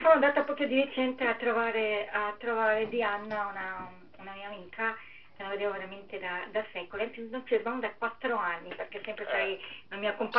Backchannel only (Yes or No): Yes